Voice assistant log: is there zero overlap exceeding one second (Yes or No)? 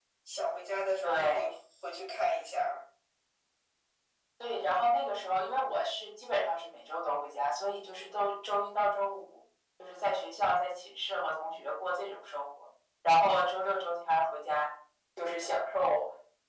Yes